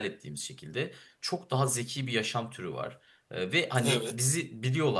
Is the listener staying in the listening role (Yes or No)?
Yes